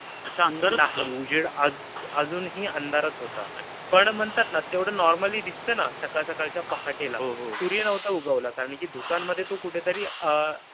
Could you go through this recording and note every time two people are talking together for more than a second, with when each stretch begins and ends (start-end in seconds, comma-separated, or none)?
none